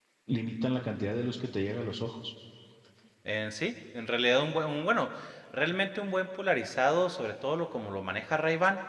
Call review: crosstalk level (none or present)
none